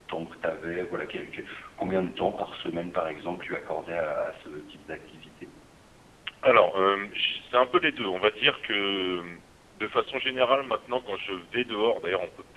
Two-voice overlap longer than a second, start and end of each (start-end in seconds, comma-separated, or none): none